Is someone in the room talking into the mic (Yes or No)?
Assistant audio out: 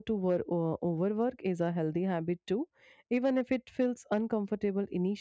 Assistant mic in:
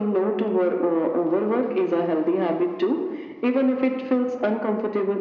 No